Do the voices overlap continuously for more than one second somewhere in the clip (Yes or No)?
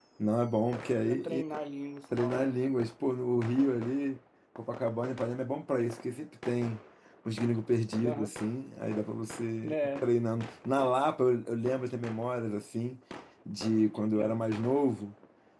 No